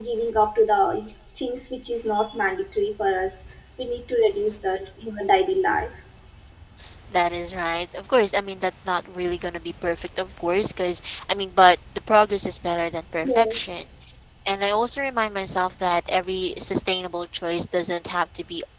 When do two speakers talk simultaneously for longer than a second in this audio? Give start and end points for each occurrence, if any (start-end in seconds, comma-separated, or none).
none